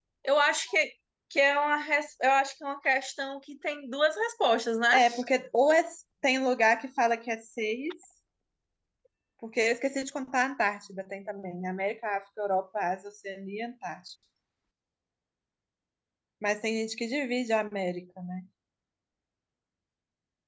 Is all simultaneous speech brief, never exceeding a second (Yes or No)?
Yes